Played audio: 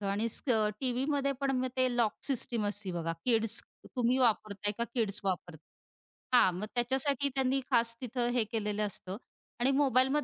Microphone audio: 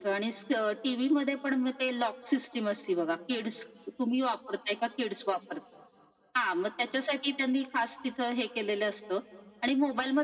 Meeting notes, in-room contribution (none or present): none